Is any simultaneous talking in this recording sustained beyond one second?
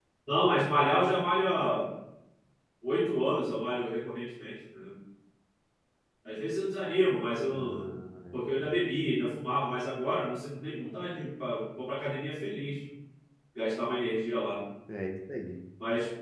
No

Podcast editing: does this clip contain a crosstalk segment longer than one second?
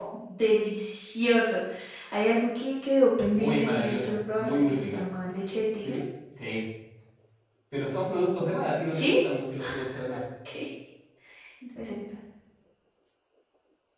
Yes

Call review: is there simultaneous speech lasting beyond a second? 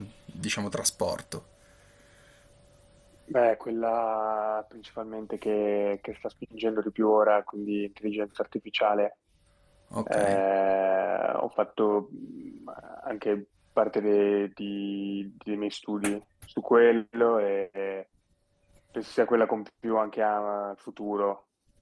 No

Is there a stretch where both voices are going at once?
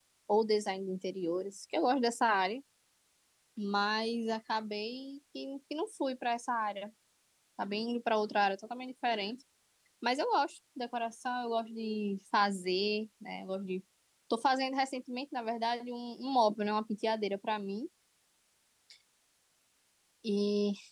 No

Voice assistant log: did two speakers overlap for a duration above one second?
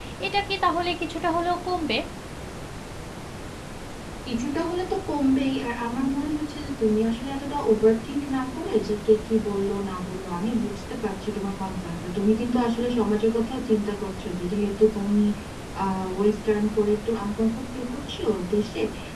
No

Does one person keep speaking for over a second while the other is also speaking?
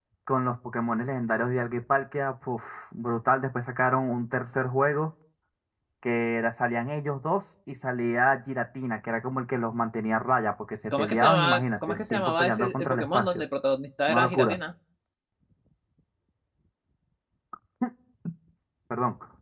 Yes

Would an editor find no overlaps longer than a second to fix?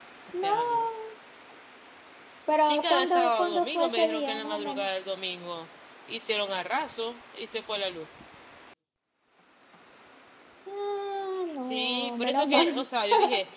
No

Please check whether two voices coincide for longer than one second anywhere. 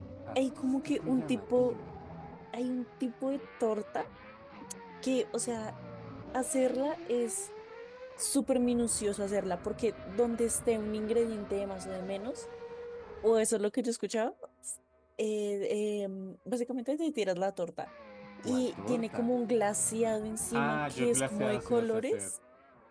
Yes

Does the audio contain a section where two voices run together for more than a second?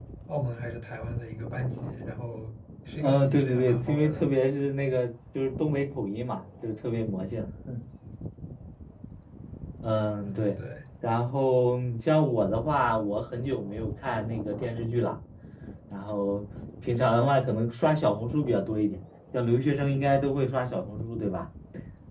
Yes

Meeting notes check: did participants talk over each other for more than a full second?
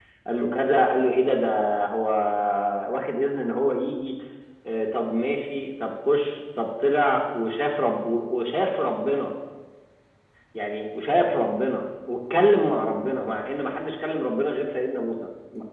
No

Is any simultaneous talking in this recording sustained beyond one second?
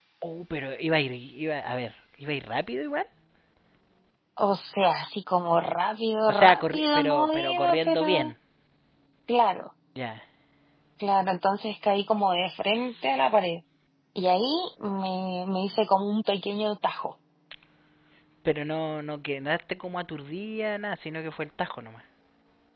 Yes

